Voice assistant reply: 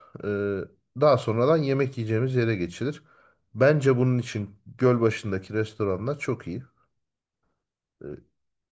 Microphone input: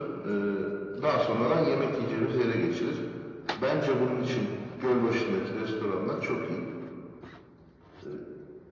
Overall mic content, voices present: echo only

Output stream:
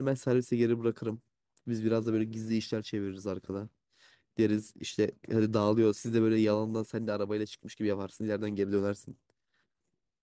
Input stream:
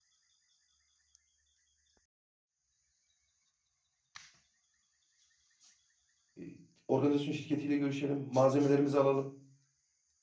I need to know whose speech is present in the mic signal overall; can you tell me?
user only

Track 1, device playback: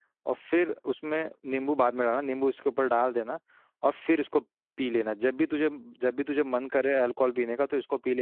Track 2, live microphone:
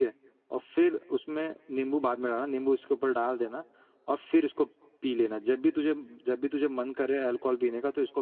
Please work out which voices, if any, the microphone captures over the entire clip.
echo only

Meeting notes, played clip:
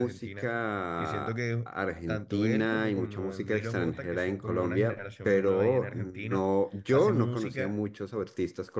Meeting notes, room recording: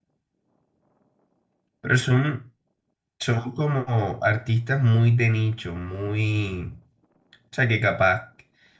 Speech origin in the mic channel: user only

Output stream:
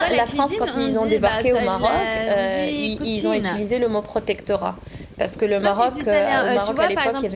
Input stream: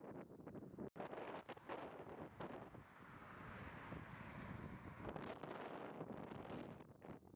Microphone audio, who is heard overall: neither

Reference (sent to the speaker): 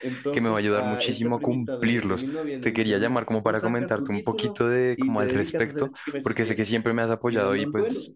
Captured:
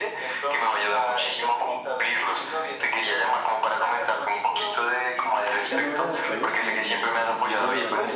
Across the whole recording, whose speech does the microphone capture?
both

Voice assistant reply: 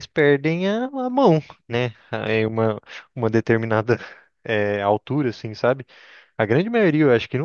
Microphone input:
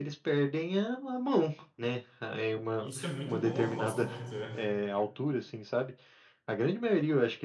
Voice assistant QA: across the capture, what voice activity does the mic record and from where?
both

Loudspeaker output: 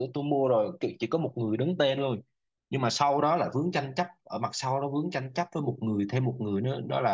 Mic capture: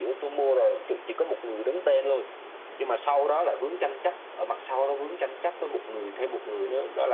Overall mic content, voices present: echo only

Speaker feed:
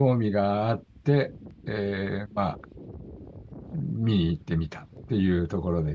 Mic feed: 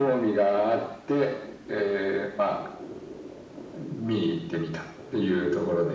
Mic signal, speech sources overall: echo only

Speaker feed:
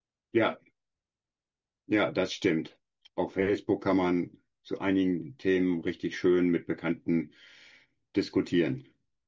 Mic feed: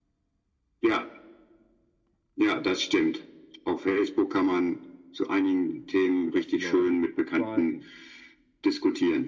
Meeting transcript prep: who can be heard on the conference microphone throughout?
both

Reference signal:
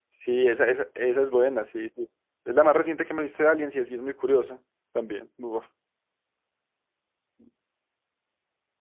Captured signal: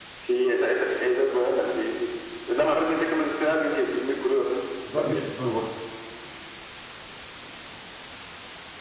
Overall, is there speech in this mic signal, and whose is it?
both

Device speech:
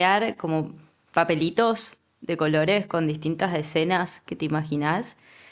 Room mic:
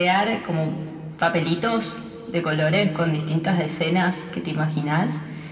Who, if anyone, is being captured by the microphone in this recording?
echo only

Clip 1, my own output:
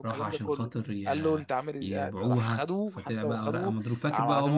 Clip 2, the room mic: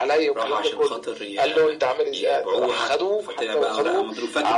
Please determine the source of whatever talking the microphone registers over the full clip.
echo only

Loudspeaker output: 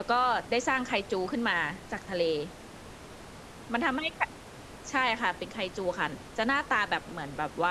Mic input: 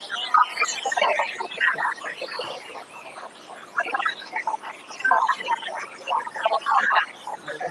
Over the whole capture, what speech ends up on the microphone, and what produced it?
echo only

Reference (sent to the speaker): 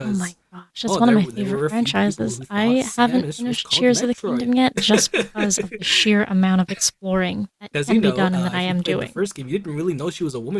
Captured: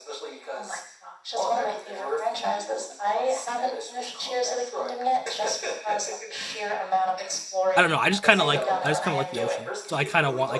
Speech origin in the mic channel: both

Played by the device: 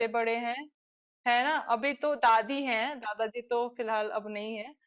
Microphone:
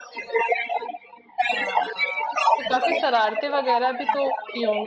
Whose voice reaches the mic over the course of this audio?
both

